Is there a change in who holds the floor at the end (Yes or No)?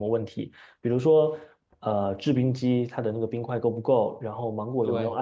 No